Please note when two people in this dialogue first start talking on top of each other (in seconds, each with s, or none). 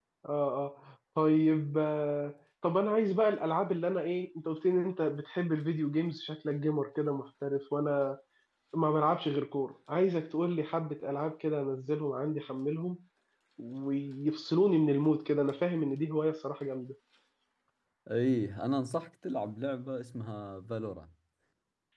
none